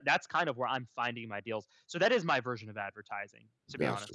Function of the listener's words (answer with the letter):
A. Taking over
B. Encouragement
A